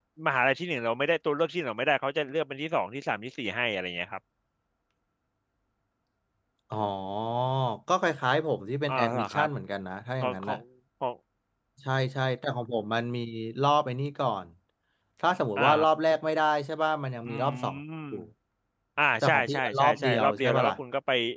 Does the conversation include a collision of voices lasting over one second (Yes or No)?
Yes